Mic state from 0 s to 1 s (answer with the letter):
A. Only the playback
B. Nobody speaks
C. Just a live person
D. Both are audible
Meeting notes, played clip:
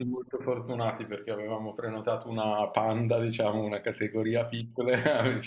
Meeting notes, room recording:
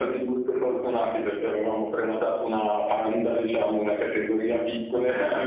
A